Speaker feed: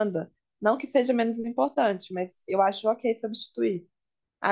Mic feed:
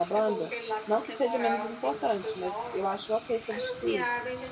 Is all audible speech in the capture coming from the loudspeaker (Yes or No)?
No